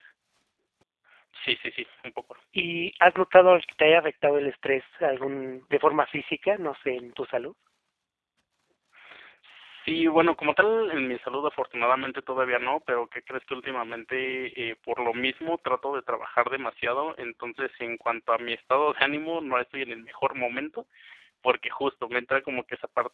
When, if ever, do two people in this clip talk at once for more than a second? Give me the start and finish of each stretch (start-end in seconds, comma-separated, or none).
none